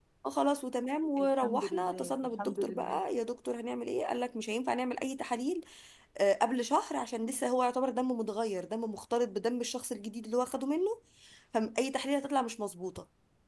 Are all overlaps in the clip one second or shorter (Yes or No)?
No